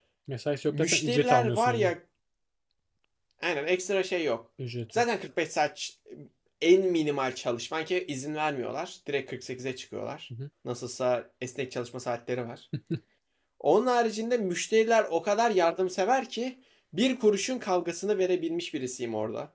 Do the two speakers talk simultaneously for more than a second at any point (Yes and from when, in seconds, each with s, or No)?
Yes, from 0.7 s